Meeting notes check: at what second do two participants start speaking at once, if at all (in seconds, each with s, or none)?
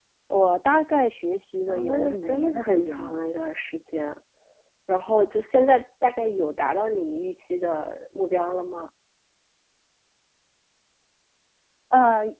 1.7 s